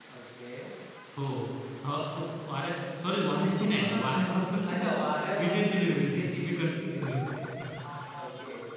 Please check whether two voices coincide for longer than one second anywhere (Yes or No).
Yes